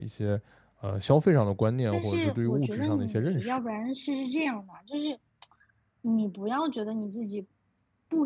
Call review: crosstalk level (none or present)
present